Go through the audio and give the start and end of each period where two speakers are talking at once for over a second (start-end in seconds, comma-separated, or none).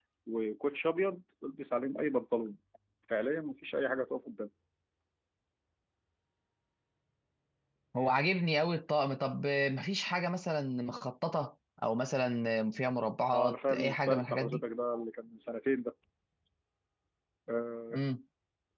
13.3-14.6